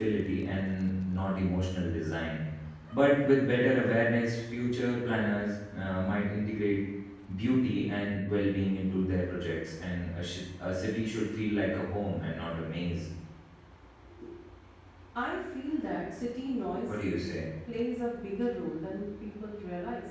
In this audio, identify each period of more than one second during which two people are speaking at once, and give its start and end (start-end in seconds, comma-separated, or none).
none